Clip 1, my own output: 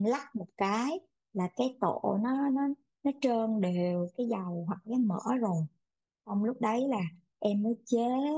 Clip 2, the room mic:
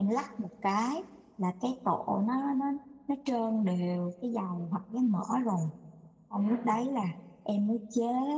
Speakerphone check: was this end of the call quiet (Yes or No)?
No